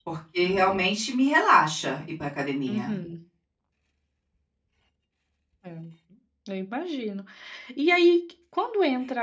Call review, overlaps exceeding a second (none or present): none